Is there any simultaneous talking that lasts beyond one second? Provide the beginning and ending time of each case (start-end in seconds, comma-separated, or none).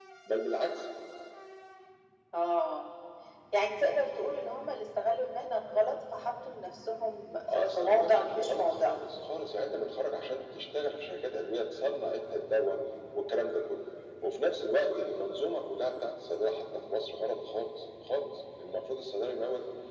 7.5-8.9